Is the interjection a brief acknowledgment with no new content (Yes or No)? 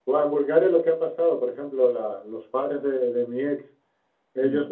Yes